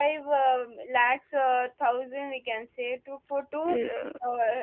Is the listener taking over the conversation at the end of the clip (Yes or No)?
Yes